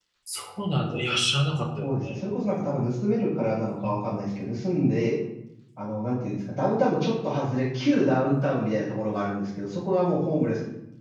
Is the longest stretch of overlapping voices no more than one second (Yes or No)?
Yes